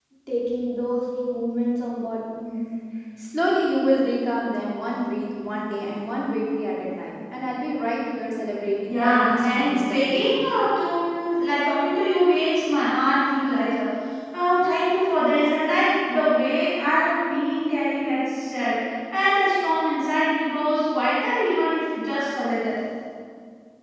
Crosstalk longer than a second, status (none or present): present